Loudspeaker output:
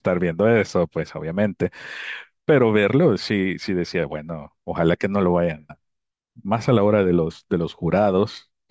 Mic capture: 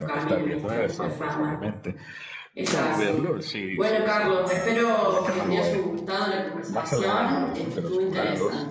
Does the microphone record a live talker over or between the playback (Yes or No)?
Yes